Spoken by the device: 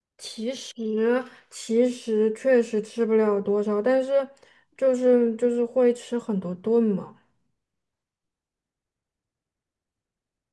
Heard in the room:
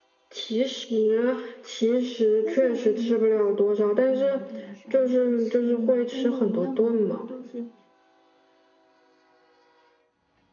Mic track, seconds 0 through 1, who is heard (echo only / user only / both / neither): echo only